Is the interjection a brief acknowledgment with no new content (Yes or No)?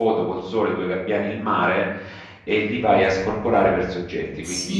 No